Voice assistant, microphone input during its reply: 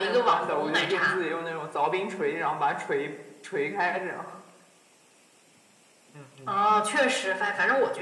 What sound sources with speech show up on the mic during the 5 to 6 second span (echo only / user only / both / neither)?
neither